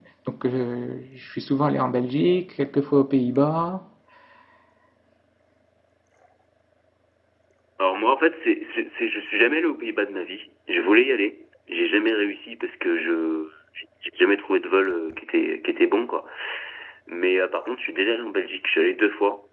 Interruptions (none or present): none